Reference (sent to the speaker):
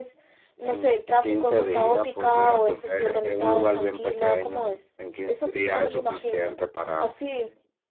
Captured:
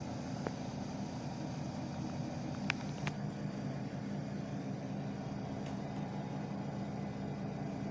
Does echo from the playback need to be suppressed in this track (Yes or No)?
No